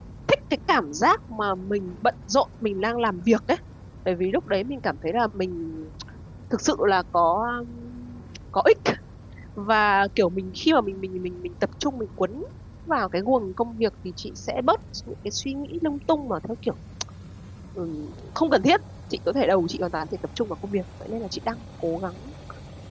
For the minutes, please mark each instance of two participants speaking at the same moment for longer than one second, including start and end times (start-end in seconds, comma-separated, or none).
none